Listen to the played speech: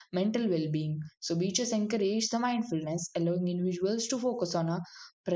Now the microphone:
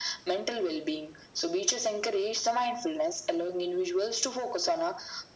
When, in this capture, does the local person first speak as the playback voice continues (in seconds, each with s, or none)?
none